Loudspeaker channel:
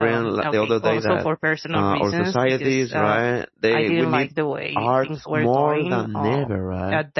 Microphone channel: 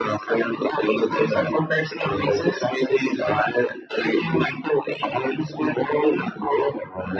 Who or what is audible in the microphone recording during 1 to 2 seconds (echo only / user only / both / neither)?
echo only